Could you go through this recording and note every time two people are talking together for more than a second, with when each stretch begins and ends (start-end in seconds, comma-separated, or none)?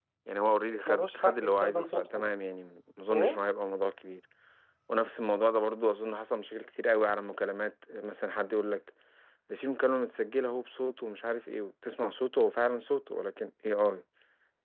0.9-2.3